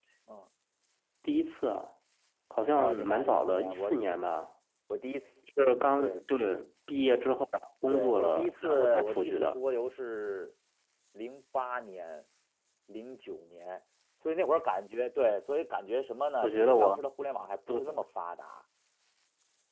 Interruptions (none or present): present